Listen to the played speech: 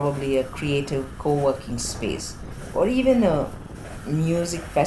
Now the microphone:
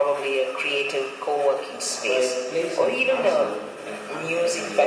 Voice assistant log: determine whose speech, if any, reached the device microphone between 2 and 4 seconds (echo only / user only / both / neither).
both